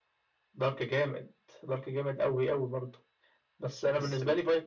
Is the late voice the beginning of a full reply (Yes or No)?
No